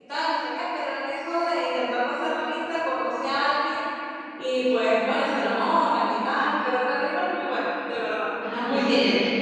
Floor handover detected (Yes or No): Yes